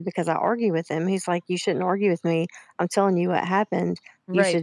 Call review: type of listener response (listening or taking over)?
taking over